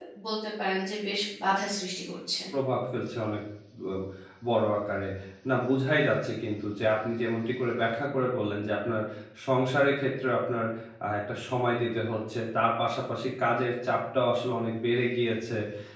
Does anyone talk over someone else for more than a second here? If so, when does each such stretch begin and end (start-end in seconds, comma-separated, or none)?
none